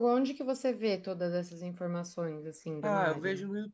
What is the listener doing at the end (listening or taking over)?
taking over